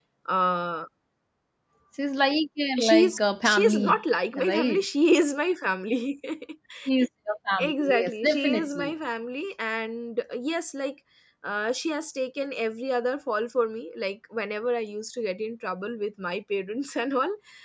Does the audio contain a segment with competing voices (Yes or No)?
Yes